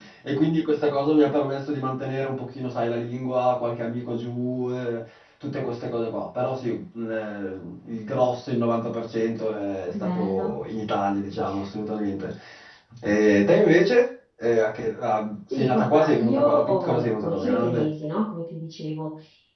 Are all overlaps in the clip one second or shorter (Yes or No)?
No